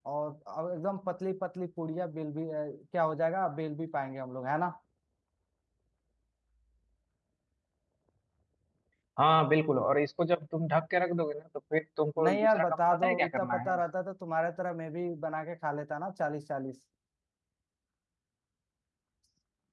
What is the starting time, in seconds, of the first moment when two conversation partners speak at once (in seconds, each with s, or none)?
12.2 s